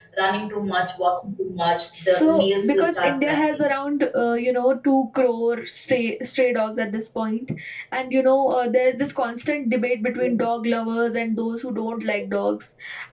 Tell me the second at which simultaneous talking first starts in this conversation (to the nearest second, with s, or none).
2 s